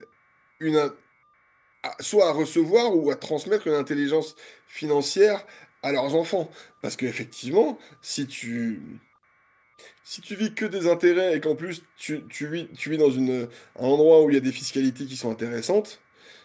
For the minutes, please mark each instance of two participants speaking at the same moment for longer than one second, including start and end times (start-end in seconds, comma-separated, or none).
none